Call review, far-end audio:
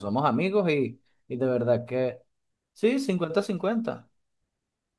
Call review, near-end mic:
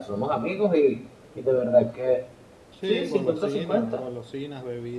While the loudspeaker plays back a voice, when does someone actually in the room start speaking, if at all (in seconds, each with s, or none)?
2.7 s